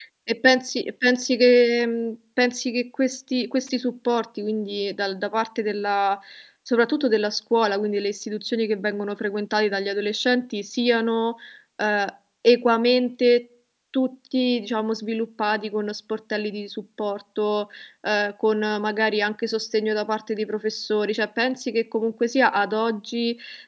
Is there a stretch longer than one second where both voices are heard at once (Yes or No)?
No